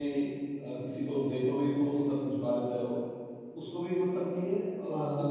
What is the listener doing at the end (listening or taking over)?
listening